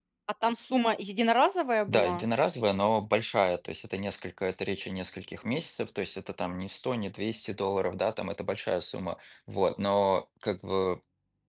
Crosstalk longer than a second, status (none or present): none